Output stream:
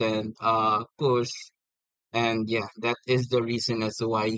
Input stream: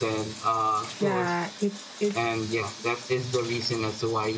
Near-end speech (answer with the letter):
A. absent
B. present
B